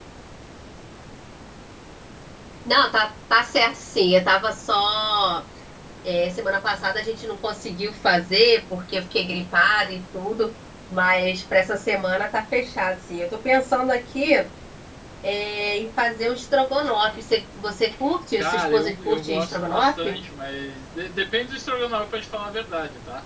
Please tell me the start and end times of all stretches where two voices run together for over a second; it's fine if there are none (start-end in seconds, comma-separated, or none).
18.4-20.2